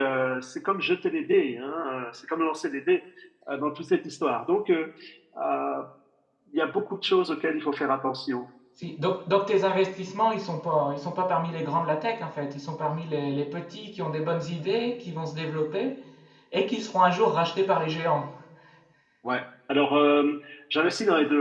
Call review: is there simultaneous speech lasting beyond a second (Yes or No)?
No